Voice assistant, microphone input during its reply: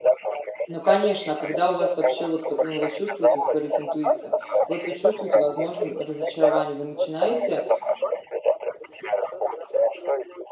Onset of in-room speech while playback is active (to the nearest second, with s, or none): 1 s